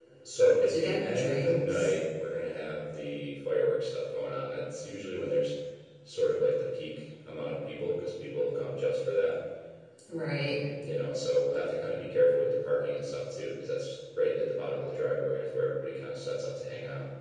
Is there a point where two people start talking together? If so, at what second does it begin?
0.7 s

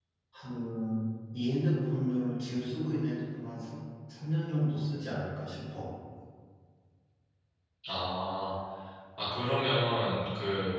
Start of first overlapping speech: none

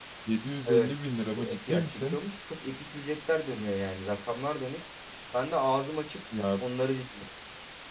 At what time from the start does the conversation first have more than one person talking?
0.6 s

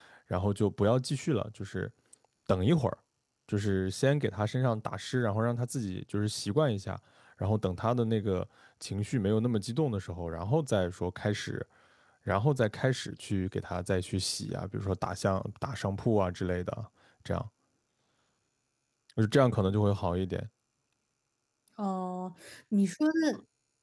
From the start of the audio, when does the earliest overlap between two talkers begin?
none

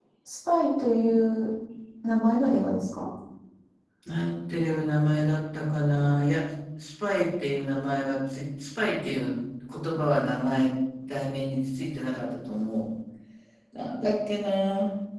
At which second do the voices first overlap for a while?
none

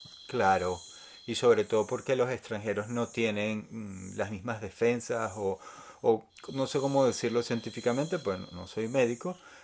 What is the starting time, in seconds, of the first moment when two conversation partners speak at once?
none

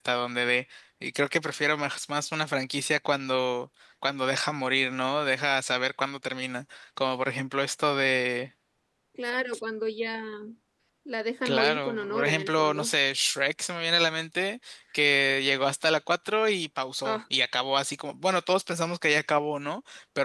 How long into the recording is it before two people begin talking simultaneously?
11.4 s

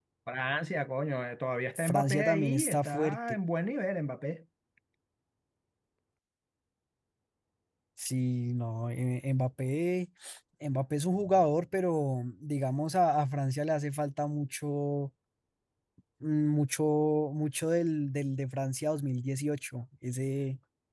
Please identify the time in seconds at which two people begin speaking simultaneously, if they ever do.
1.8 s

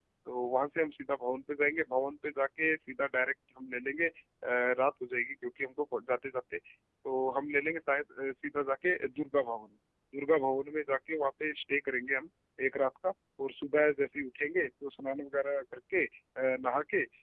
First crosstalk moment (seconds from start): none

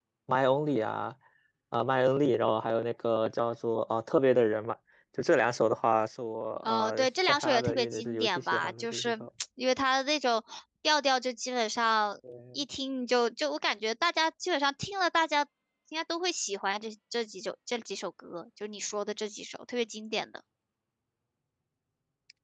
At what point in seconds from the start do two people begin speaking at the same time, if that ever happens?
6.7 s

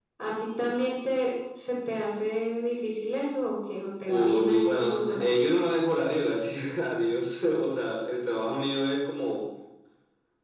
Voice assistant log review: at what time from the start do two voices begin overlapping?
4.1 s

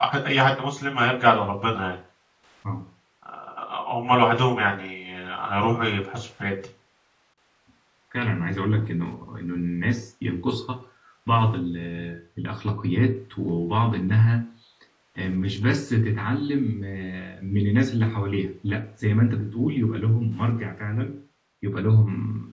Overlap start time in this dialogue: none

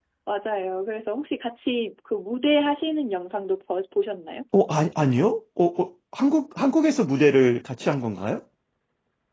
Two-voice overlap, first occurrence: none

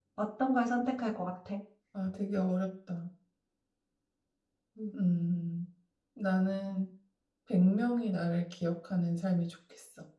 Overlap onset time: none

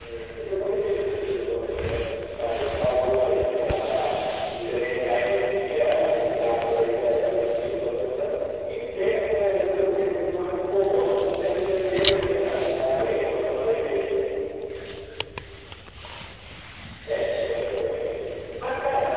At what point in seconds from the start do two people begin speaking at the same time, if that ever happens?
11.9 s

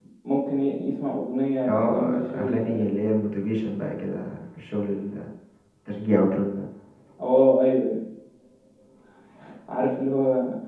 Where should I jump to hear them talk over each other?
1.6 s

